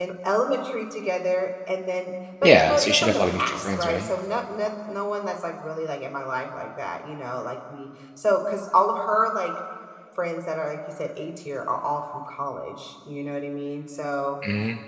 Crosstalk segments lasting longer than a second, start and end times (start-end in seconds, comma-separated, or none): 2.4-4.1